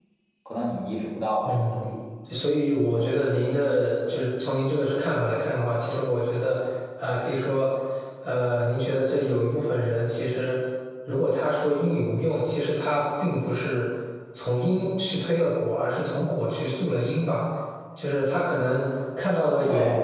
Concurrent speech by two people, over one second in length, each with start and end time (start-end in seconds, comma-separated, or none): none